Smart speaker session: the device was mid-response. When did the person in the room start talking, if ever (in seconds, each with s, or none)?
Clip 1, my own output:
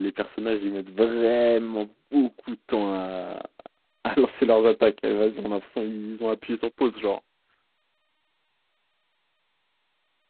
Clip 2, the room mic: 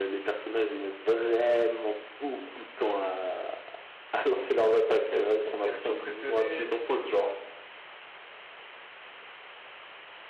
5.6 s